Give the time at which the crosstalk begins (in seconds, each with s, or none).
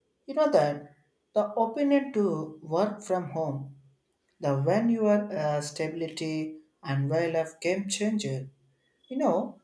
none